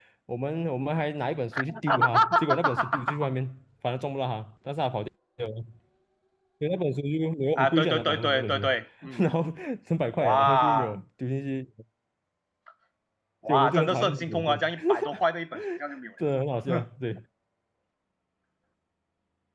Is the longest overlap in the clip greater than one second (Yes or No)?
Yes